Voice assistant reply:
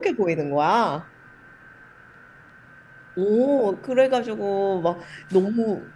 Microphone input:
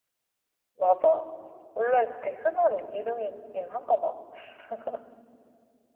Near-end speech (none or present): present